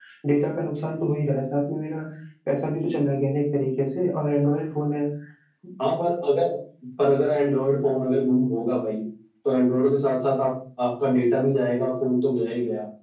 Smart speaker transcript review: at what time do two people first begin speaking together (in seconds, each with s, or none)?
none